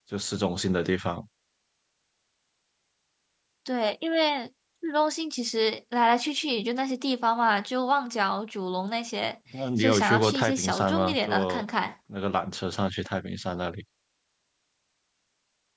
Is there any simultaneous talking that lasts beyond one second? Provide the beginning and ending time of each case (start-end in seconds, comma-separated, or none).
9.8-11.7